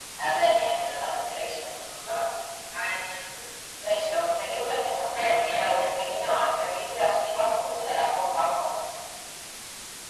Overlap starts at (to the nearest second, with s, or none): 5 s